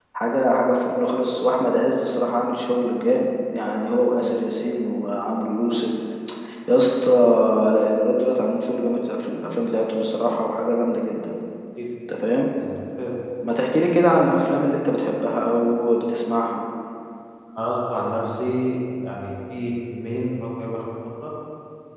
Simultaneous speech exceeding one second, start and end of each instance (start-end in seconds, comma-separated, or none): none